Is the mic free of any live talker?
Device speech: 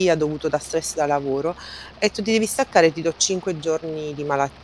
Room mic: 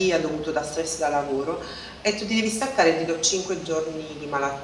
Yes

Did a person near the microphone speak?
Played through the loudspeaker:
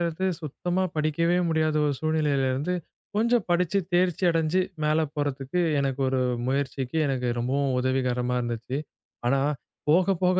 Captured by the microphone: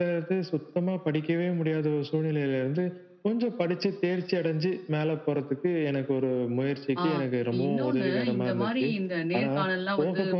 Yes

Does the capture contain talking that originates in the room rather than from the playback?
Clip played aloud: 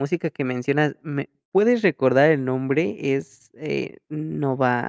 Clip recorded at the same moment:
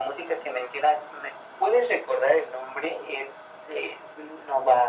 No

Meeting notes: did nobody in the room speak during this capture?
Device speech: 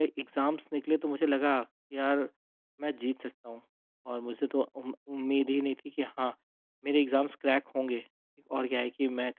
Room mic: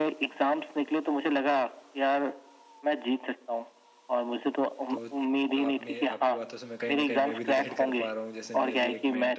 No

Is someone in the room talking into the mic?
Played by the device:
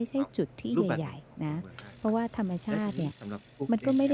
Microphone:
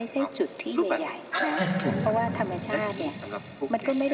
Yes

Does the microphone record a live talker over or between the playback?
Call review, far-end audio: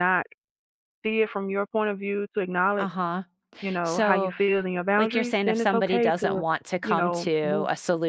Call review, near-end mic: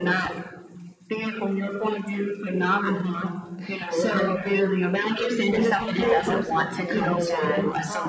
Yes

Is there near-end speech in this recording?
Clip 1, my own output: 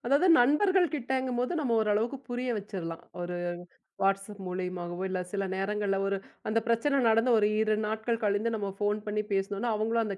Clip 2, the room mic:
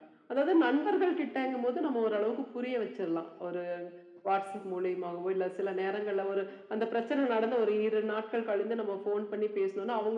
No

